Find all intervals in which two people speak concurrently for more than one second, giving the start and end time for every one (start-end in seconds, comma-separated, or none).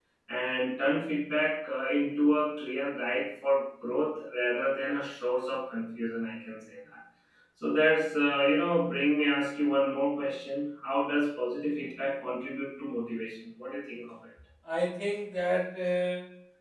none